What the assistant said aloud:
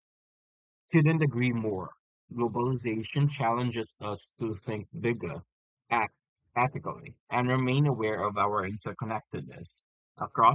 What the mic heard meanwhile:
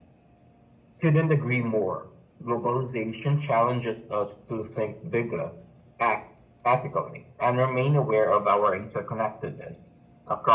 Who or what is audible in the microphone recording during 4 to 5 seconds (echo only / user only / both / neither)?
echo only